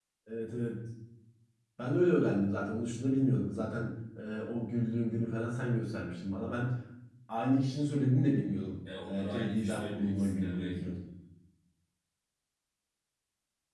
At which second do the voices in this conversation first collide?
8.8 s

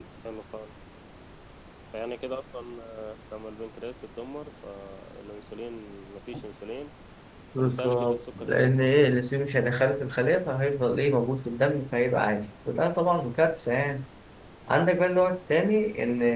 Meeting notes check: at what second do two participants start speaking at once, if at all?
7.6 s

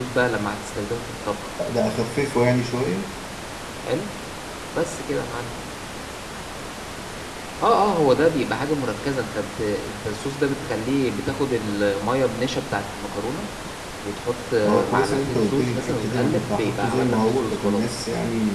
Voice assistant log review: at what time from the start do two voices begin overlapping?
14.6 s

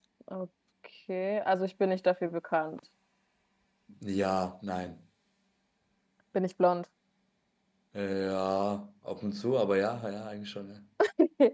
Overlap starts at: none

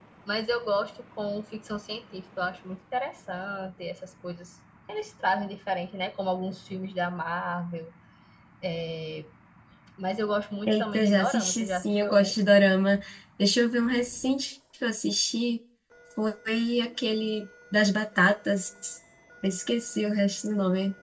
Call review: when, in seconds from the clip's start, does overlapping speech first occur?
10.7 s

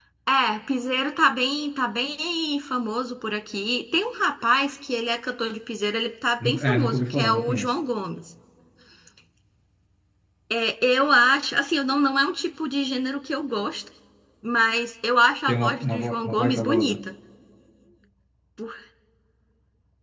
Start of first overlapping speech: 6.4 s

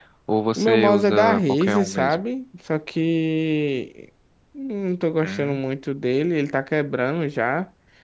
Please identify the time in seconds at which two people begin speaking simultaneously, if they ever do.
0.6 s

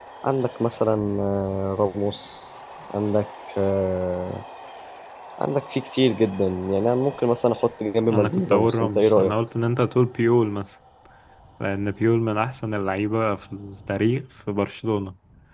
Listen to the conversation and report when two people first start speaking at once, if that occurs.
8.1 s

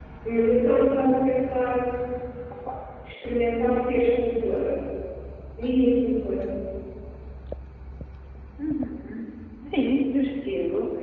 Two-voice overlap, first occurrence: none

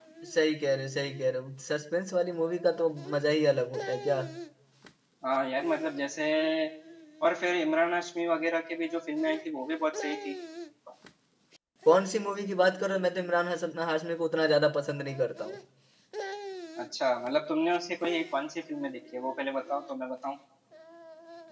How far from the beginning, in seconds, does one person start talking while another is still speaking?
none

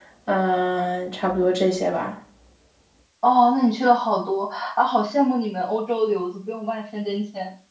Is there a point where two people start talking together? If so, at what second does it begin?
none

